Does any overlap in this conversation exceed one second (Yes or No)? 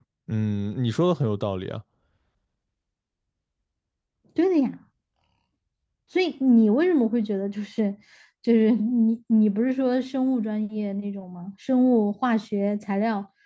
No